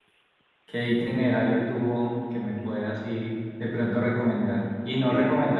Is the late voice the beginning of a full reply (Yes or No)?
No